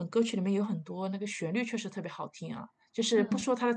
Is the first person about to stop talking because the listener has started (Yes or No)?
No